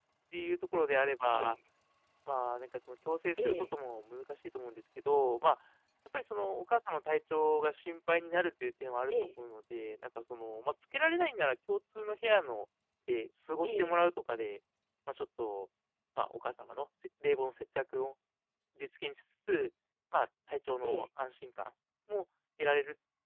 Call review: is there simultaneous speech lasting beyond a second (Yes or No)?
No